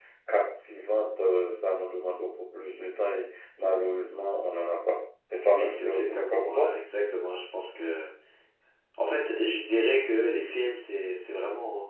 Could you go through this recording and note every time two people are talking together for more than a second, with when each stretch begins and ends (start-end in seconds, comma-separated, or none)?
5.5-6.7